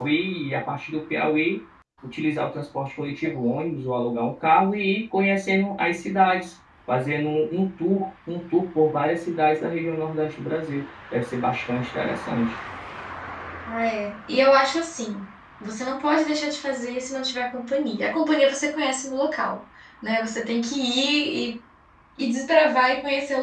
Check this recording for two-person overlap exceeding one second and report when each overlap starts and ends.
none

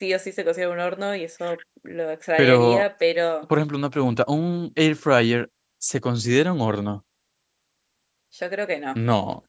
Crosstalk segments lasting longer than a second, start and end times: none

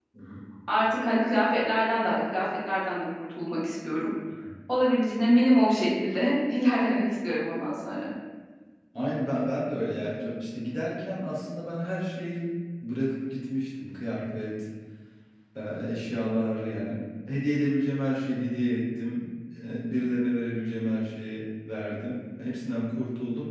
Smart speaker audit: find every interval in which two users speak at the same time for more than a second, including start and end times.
none

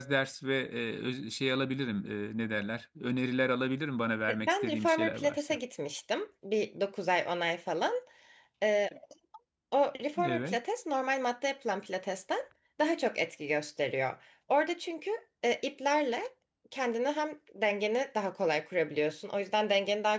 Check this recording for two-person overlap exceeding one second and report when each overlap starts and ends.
4.3-5.6

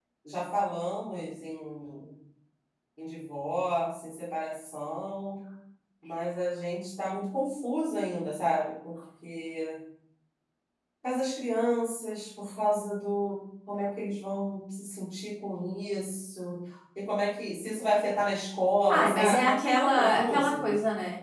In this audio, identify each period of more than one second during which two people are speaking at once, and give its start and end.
18.9-20.7

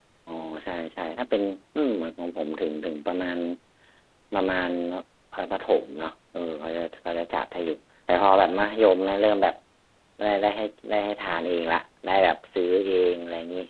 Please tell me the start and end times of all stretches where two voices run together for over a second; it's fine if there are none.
none

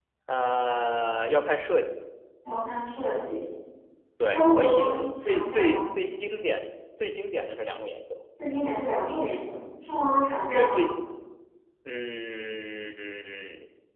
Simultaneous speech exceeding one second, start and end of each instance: 4.2-5.8

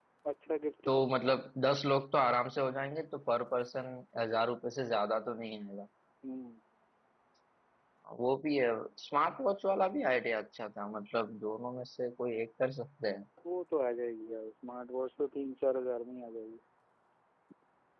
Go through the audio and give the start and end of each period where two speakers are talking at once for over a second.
none

